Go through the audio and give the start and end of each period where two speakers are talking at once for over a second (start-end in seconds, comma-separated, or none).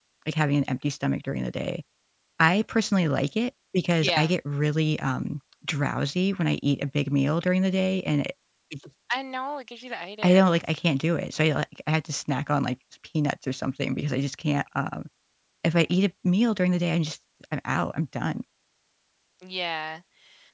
none